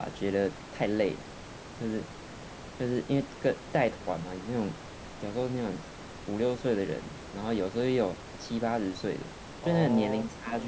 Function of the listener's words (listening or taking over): listening